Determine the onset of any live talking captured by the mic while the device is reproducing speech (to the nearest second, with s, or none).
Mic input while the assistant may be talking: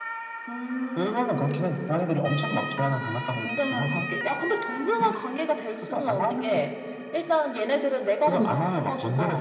8 s